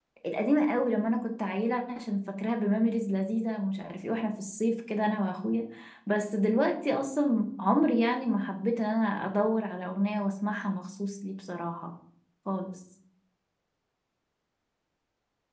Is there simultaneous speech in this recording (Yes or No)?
No